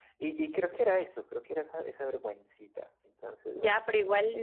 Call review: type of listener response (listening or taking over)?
taking over